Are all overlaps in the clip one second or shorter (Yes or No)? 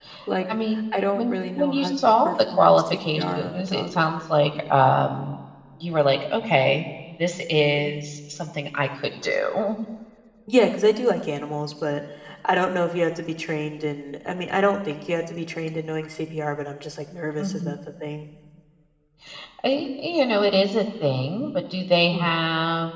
No